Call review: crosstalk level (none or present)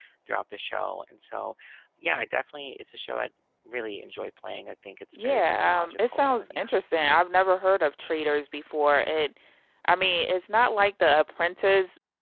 present